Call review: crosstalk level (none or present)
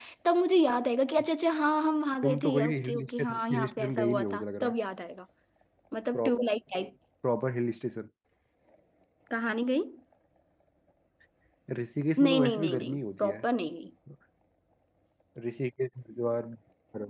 present